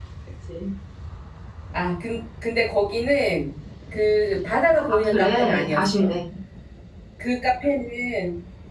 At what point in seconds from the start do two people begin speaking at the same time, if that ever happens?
5 s

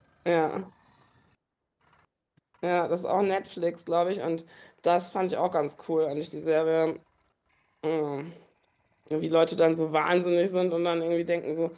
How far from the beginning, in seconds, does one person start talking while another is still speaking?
none

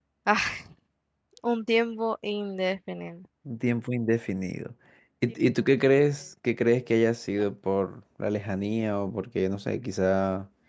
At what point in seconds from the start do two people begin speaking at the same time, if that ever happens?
none

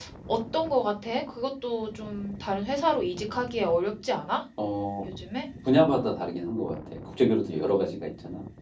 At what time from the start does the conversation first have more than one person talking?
none

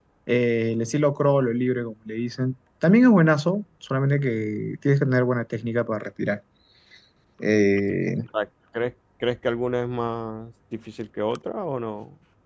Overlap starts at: none

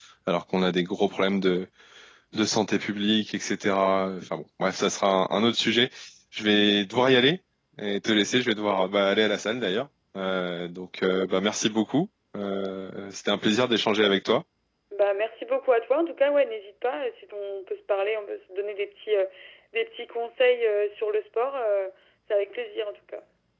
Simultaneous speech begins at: none

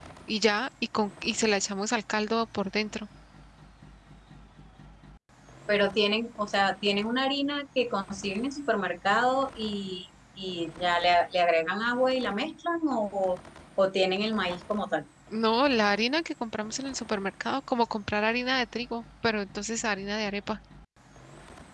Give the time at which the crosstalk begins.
none

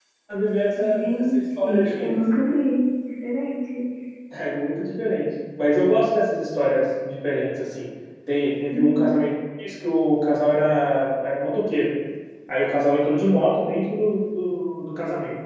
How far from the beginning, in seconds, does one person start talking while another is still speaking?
1 s

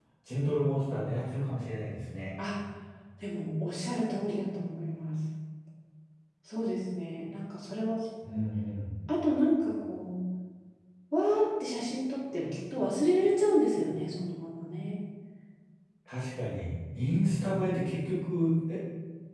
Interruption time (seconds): none

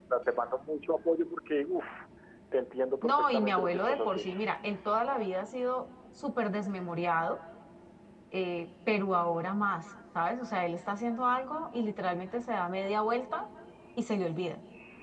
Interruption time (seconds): 3 s

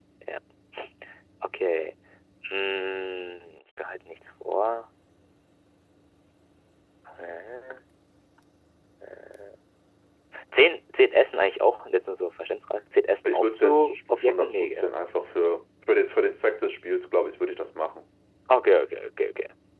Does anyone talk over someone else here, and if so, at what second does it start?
13 s

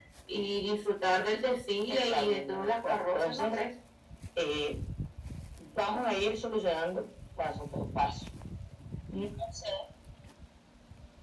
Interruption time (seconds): 2 s

